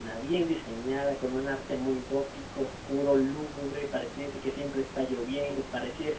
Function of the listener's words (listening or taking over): listening